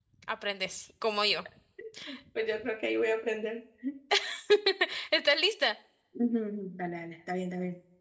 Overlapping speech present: No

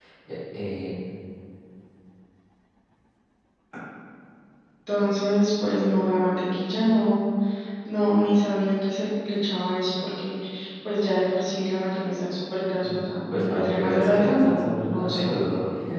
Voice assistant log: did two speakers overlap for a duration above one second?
Yes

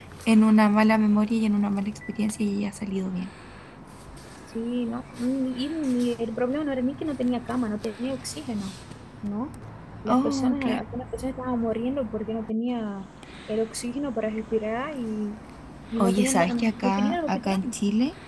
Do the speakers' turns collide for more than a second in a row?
Yes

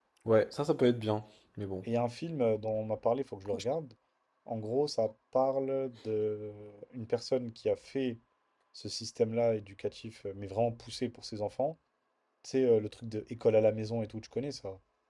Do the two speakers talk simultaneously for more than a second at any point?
No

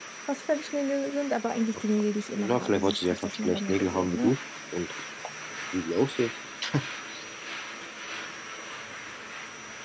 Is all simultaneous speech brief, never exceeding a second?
No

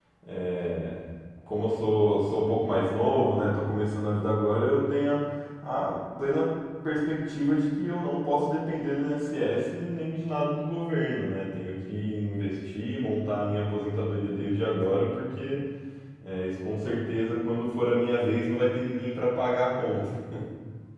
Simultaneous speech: No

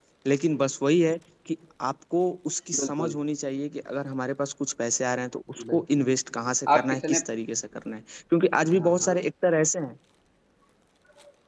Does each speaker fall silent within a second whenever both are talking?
Yes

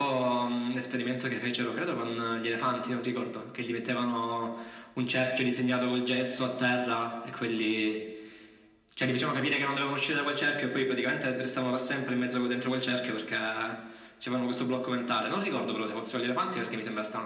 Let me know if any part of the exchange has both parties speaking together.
No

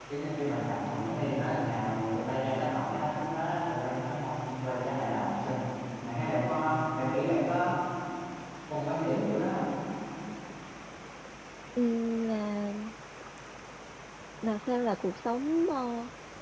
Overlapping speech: No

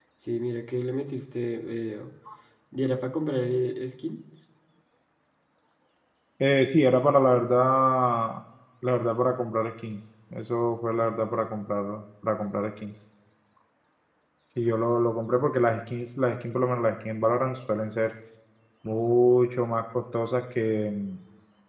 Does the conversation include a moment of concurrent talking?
No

